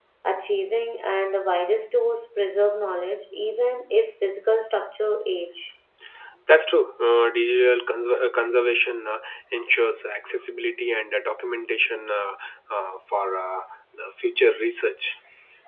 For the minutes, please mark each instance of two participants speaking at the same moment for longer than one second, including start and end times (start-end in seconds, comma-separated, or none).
none